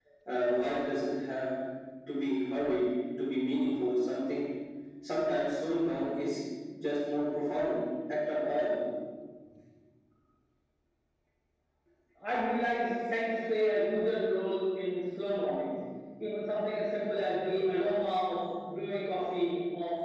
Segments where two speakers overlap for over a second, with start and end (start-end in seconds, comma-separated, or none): none